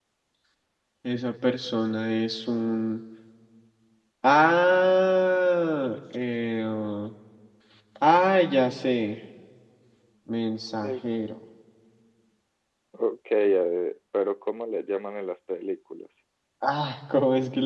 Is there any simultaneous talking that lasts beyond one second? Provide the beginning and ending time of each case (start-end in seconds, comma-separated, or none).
none